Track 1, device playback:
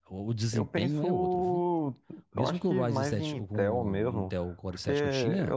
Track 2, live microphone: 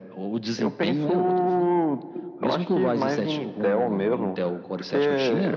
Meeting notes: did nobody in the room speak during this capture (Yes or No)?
Yes